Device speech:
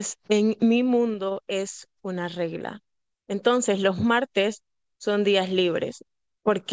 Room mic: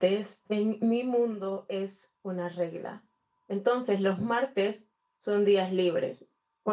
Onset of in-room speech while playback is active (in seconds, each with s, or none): none